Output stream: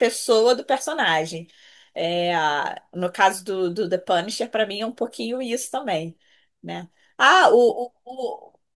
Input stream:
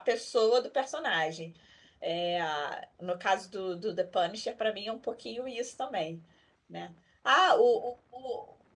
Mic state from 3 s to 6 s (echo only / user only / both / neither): echo only